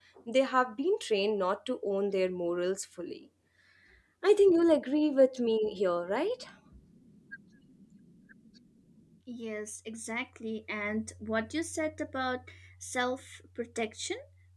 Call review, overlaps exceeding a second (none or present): none